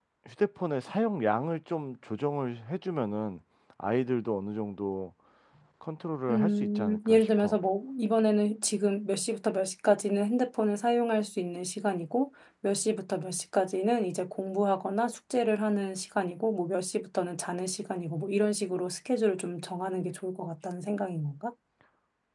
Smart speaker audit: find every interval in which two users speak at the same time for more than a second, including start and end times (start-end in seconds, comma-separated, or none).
6.3-7.6